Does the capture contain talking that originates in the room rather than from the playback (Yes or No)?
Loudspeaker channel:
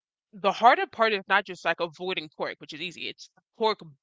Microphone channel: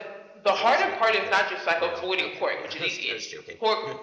Yes